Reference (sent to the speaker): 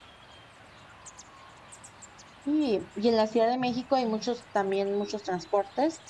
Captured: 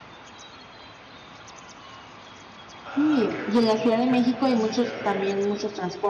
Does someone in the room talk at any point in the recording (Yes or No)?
Yes